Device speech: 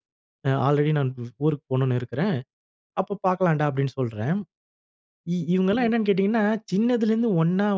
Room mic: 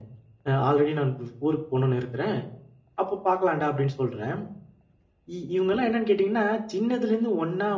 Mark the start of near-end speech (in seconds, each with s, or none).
none